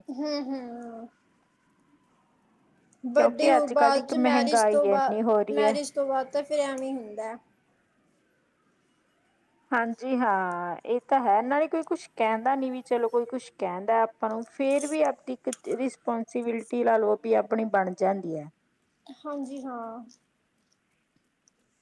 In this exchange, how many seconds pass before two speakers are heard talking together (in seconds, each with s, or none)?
3.2 s